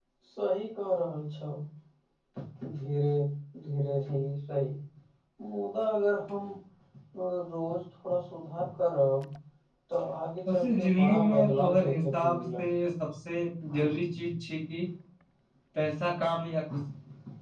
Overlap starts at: 10.5 s

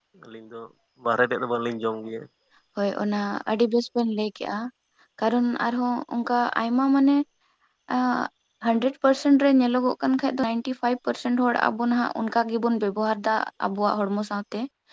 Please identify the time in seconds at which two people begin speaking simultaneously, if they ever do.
none

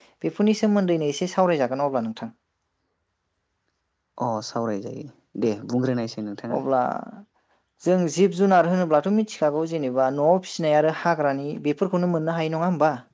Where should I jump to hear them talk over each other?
none

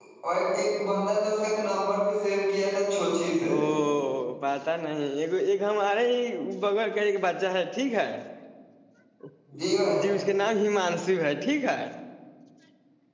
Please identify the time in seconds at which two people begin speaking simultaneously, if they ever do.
none

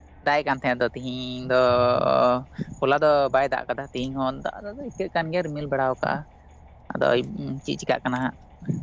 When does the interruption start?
none

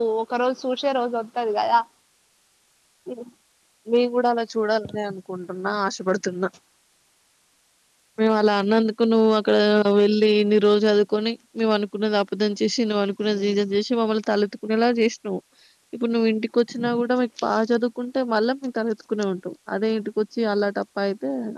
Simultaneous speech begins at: none

